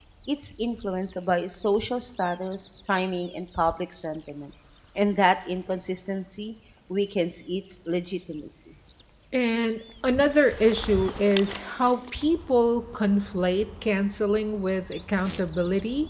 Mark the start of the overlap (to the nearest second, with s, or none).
none